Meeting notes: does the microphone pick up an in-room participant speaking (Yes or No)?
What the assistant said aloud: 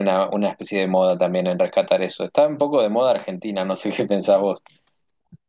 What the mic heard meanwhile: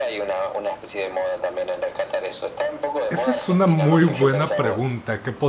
Yes